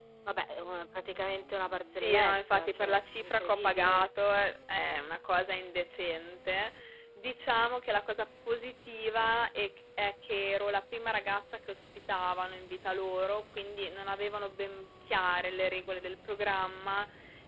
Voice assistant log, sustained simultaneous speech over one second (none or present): present